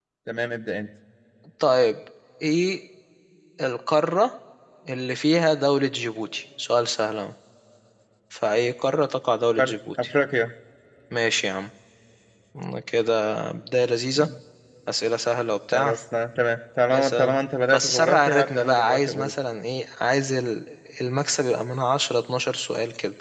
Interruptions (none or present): present